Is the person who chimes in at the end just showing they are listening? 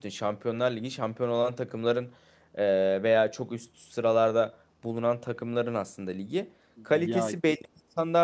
Yes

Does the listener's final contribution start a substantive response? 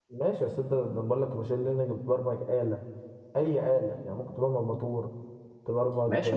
Yes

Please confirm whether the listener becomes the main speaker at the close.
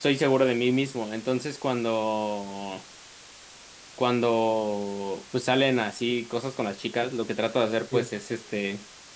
No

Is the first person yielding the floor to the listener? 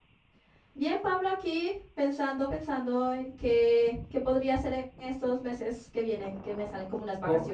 Yes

